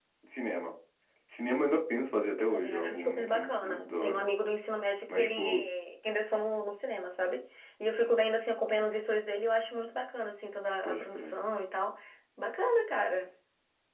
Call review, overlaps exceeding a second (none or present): present